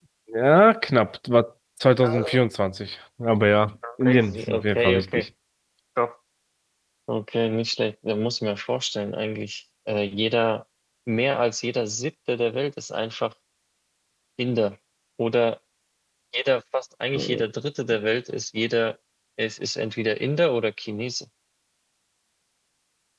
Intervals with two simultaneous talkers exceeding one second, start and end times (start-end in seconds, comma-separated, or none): 4.0-5.3